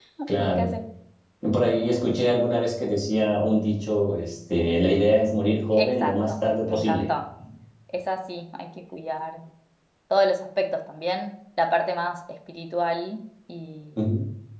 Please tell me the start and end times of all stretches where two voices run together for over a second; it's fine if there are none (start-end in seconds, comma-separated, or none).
5.7-7.1